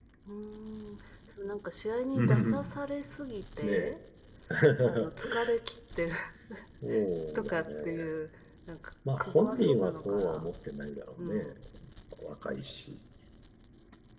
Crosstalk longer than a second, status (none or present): present